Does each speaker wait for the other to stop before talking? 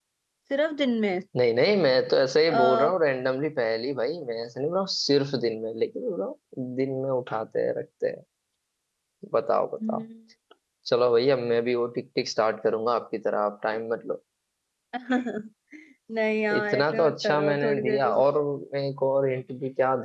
No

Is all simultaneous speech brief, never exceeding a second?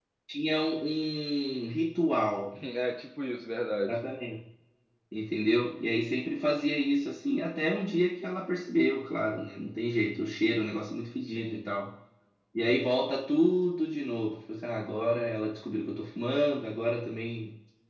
Yes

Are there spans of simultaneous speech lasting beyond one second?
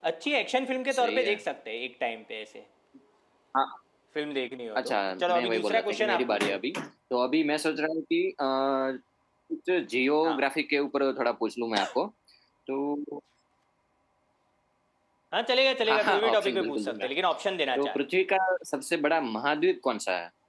Yes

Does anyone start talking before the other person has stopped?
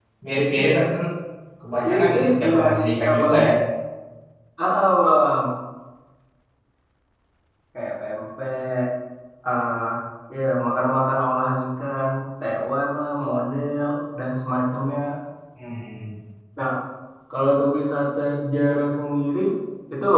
Yes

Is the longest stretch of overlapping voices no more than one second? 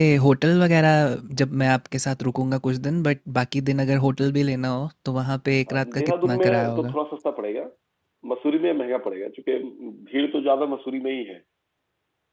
No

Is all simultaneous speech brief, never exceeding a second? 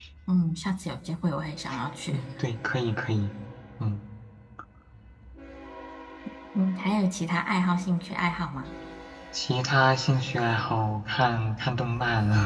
Yes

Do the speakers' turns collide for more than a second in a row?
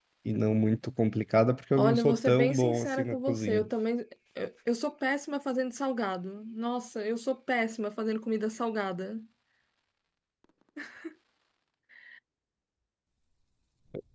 Yes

